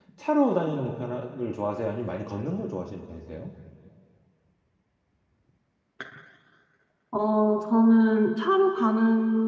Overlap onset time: none

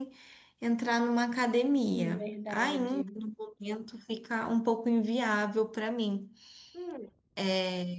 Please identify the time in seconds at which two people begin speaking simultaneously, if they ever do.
1.9 s

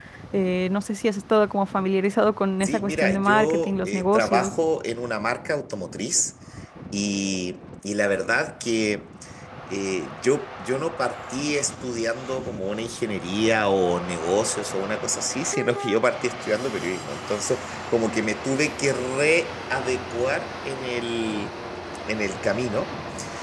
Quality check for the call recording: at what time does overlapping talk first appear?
2.6 s

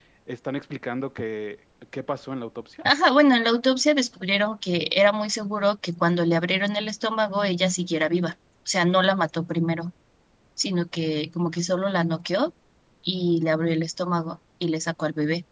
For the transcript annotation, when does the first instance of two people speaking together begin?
none

